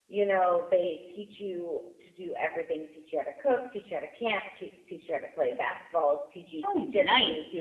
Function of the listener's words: listening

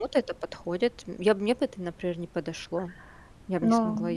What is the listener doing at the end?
taking over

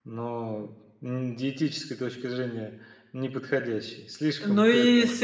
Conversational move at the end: taking over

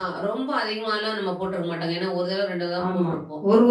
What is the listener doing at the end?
taking over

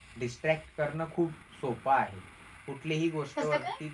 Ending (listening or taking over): listening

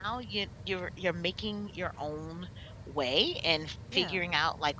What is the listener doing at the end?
listening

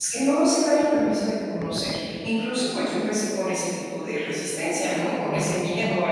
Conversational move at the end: listening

